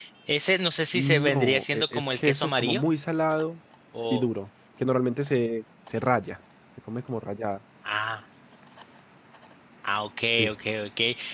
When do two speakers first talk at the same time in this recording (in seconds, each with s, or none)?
0.9 s